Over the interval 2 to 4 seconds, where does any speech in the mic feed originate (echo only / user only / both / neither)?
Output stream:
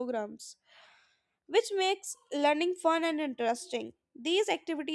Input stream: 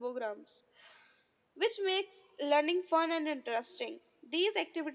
echo only